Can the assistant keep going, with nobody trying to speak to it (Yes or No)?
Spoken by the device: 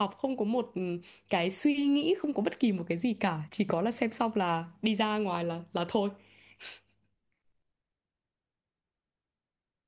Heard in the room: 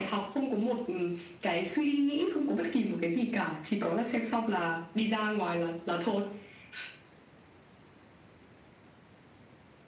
Yes